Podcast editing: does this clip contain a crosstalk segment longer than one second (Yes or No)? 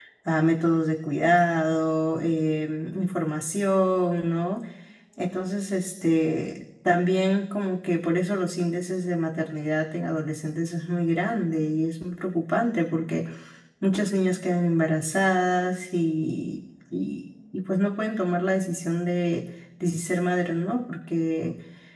No